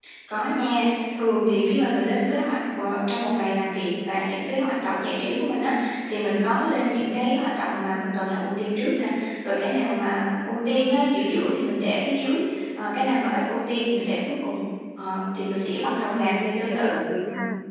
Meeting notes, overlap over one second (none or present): present